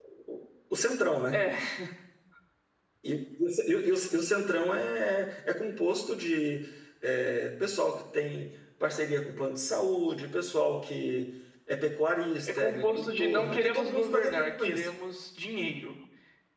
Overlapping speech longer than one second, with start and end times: 12.4-14.9

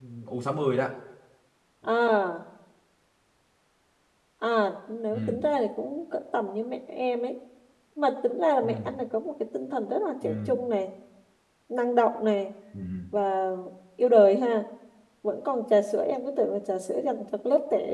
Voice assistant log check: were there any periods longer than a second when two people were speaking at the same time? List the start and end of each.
none

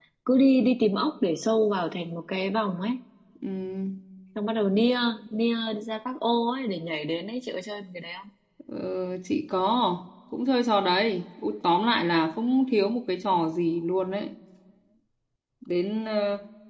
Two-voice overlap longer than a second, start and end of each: none

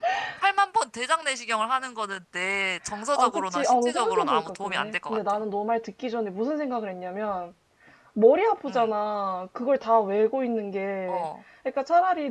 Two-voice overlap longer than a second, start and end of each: 3.2-5.2

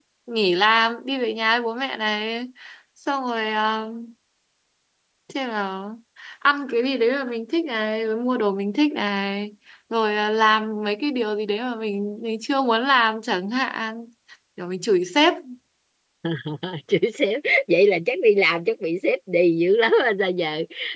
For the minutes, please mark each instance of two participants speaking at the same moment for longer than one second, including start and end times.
none

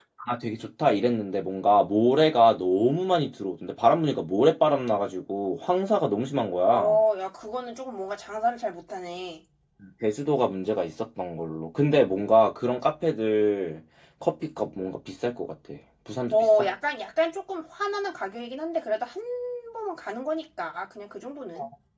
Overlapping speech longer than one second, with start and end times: none

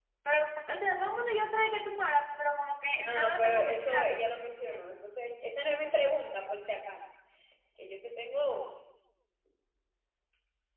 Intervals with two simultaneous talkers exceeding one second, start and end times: 3.0-4.9

